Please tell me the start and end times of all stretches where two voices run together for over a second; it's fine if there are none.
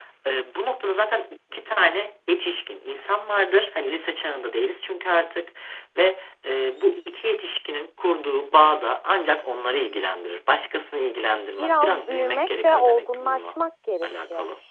11.6-13.6

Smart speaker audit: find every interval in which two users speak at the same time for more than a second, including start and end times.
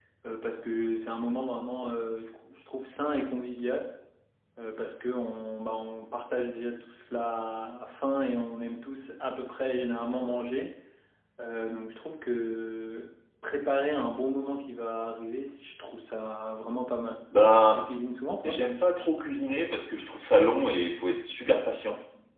none

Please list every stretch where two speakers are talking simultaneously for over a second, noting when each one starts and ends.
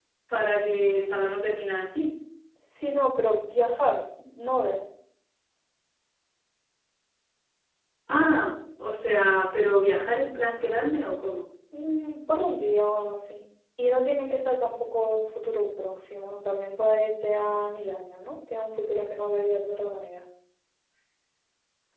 none

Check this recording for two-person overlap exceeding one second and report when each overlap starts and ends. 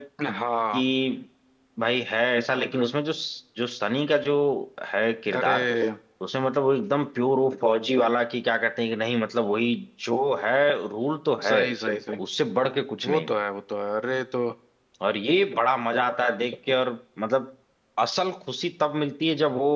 none

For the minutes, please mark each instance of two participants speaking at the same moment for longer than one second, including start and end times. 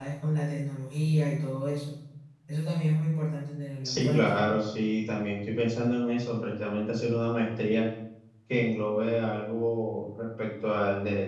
none

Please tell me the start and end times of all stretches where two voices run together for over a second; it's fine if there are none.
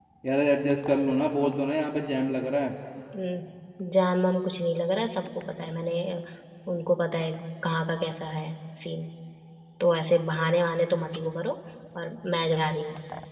none

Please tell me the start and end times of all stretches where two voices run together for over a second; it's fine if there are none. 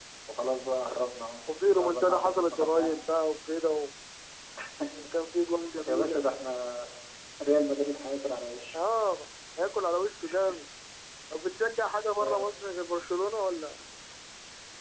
1.7-3.2

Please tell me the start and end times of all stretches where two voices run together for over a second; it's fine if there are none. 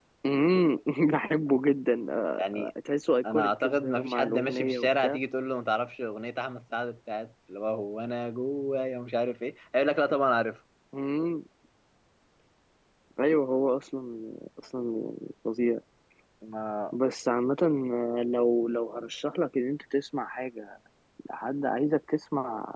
3.3-5.2

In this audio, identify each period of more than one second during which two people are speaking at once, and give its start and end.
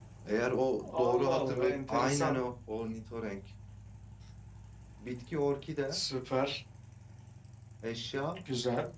0.9-2.4

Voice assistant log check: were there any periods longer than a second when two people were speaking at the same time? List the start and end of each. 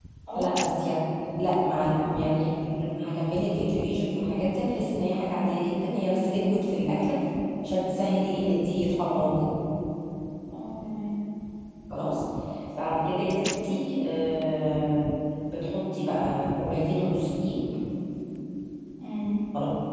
none

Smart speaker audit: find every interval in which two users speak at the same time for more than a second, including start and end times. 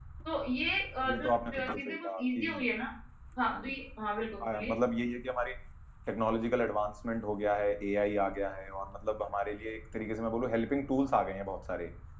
1.1-2.4

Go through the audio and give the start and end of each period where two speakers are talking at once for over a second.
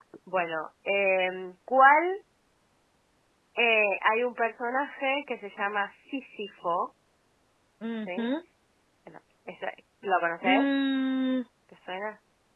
none

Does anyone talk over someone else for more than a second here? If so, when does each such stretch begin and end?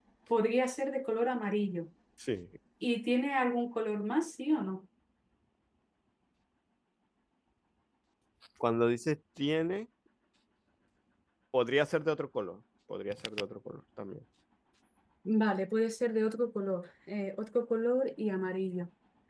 none

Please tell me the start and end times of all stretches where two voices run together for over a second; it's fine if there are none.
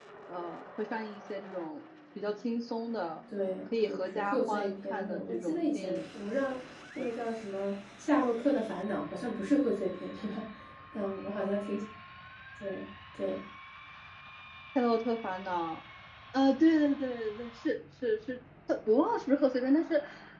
3.9-6.0

